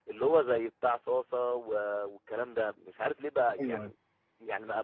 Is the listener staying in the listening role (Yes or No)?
Yes